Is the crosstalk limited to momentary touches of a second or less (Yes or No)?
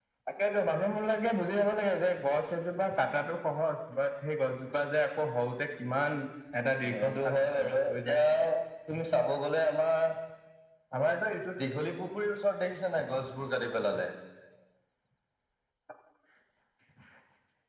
No